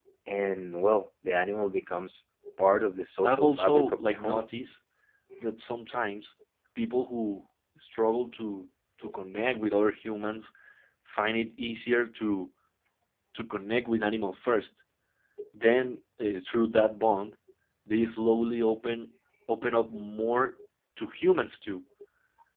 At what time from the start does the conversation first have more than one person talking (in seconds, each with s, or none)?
3.2 s